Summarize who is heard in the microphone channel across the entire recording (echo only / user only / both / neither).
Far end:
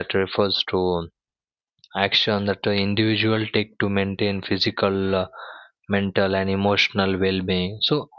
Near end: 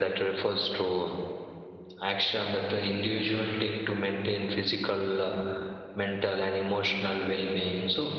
echo only